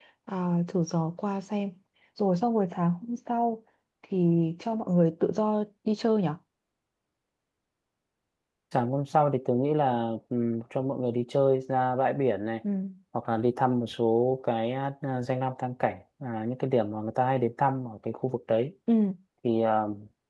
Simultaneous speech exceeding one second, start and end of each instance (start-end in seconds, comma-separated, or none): none